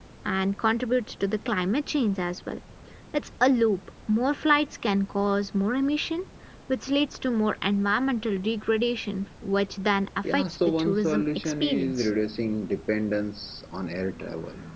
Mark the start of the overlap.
10.2 s

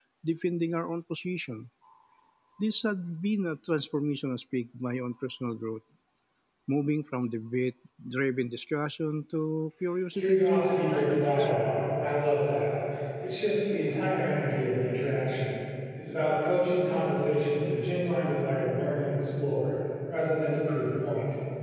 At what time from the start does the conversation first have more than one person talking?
10.1 s

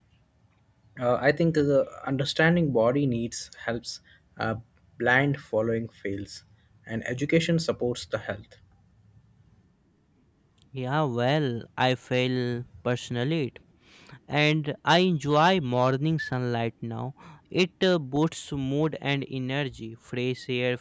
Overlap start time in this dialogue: none

